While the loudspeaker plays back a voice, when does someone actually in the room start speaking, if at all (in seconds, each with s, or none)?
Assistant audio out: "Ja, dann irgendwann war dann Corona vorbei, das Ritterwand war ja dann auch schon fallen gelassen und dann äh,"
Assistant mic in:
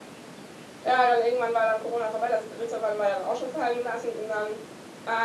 none